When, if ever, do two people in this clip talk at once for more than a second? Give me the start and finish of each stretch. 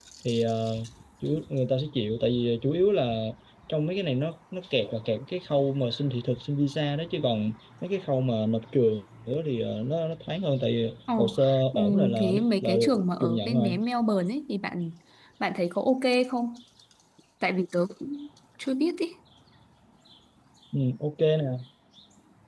11.7-13.8

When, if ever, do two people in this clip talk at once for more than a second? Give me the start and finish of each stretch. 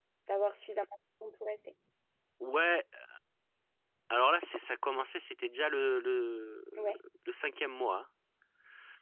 none

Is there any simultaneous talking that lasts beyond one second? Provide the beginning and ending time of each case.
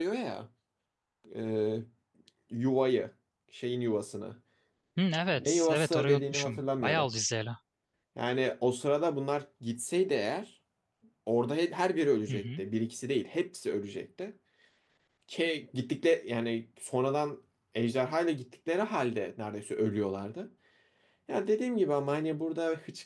5.3-7.1

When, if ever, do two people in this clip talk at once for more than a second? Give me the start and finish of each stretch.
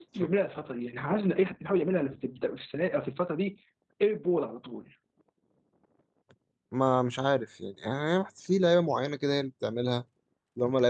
none

